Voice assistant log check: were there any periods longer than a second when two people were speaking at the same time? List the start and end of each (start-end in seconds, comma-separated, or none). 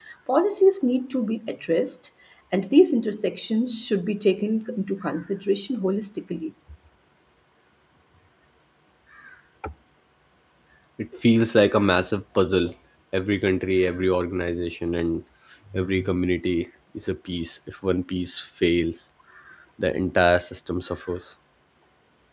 none